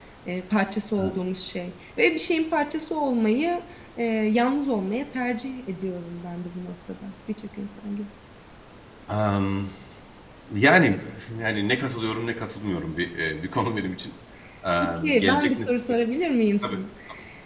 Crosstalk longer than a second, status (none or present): present